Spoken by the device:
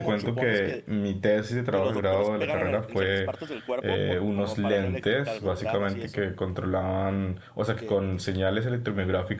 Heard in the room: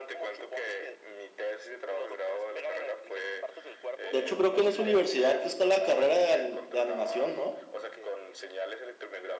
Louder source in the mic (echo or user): user